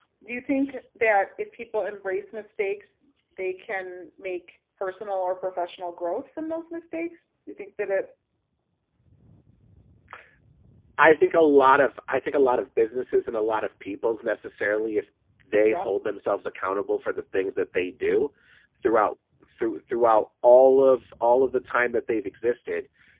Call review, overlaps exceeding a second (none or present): none